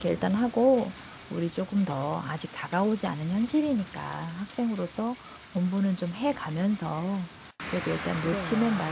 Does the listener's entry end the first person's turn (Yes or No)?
No